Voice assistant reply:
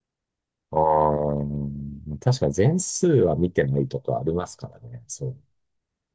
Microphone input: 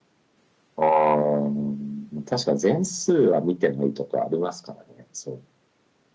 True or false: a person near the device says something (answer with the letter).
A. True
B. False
B